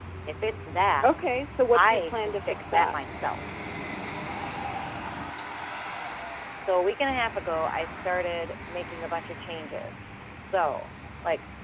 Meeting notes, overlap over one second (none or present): present